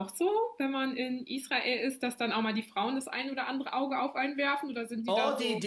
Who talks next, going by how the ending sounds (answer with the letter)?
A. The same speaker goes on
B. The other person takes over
B